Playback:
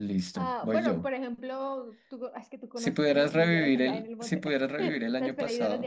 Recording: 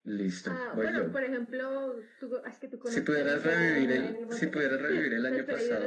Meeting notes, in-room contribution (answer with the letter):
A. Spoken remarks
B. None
A